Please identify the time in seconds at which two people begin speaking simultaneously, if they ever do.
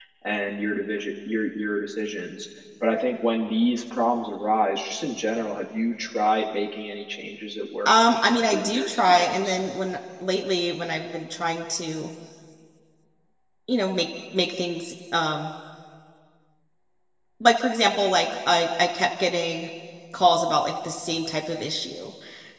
7.8 s

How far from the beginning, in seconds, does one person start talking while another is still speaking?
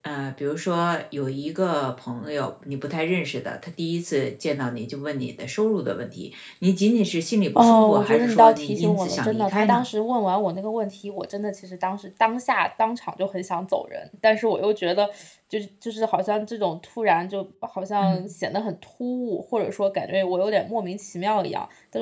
7.5 s

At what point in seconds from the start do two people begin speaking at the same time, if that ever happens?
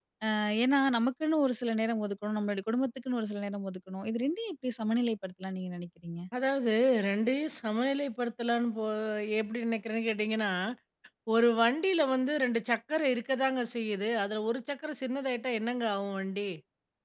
none

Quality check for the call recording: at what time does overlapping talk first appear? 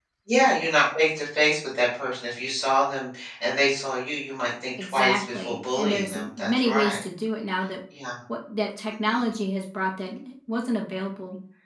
4.8 s

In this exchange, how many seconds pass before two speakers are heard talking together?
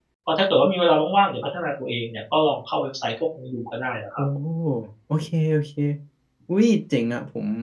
none

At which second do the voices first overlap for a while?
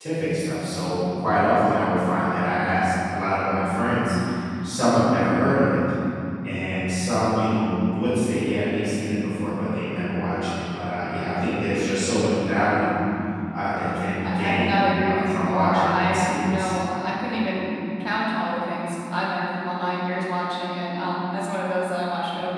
14.2 s

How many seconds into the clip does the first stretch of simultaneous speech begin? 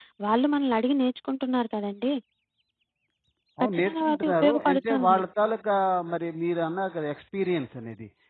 3.6 s

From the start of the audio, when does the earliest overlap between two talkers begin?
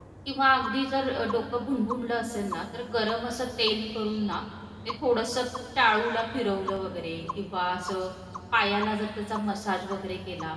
none

